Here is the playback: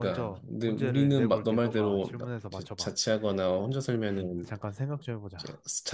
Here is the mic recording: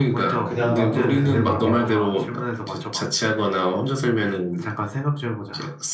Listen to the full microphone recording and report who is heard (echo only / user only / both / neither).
both